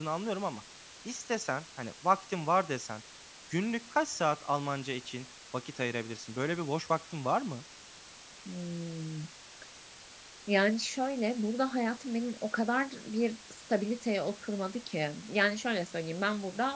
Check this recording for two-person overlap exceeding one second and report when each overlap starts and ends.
none

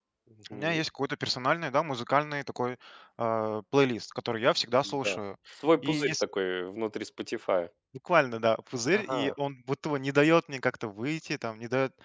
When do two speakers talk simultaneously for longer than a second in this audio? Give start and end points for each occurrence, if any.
none

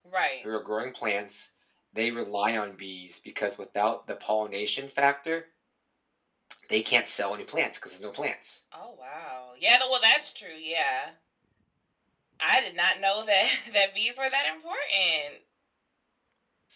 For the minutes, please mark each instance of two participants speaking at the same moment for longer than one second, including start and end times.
none

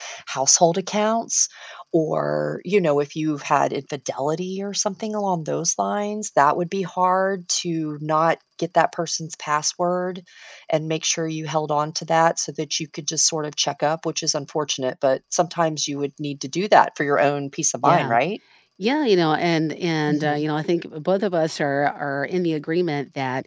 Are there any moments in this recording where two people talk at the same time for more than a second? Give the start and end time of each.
none

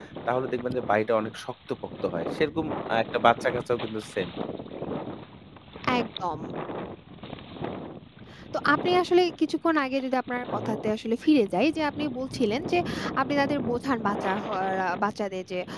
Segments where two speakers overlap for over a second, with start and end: none

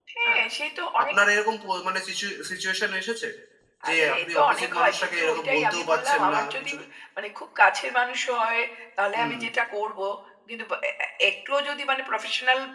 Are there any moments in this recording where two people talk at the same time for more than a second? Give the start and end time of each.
3.9-6.7

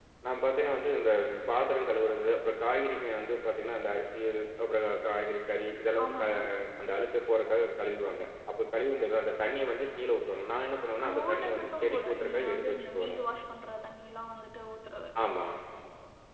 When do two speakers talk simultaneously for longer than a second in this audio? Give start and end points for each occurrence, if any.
11.0-13.2

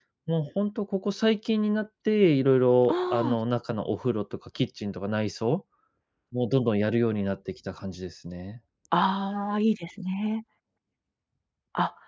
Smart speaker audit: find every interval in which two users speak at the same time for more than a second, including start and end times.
none

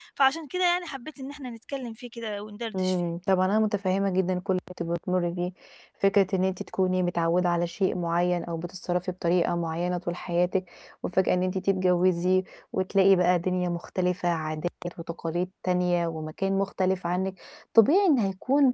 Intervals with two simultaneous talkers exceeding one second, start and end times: none

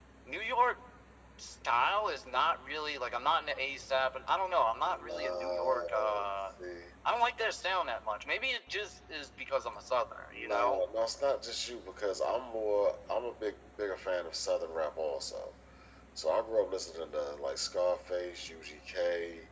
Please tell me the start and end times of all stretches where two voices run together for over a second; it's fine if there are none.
4.8-6.3

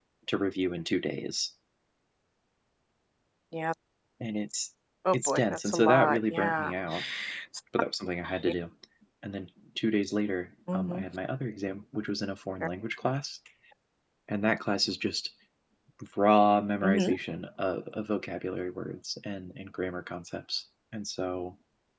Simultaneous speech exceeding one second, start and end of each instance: 5.1-6.7

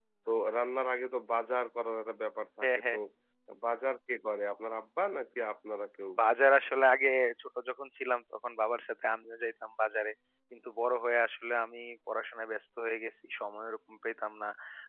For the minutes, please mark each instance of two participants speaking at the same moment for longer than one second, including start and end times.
none

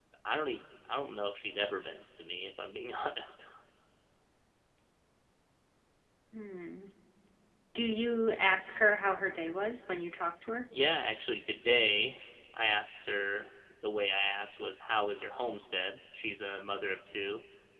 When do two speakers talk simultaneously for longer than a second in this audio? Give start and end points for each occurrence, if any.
none

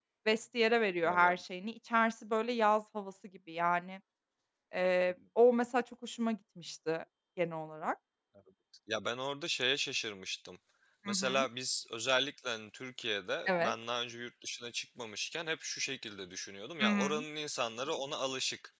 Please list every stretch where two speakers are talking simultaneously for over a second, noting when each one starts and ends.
none

